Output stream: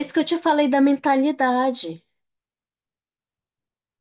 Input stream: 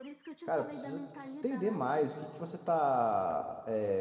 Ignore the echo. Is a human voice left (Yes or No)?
Yes